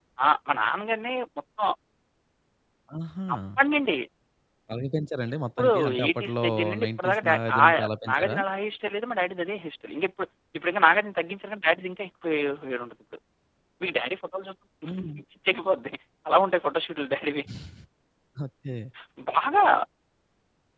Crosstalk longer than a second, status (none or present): present